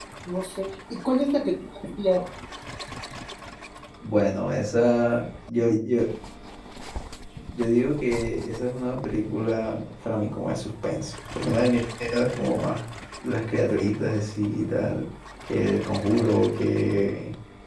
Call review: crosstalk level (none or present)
none